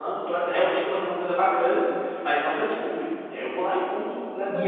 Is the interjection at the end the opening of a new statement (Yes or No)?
Yes